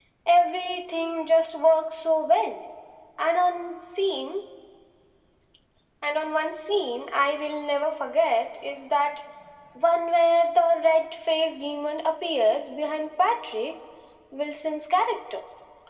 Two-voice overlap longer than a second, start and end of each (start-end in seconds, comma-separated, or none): none